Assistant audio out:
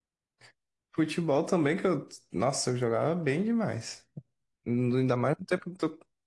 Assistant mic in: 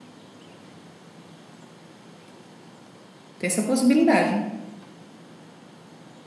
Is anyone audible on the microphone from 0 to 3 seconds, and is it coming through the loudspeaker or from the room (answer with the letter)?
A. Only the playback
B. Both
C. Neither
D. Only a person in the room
C